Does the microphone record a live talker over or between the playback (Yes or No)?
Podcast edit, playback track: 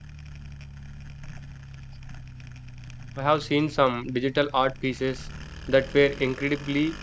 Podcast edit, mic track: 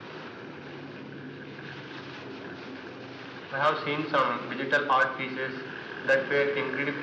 No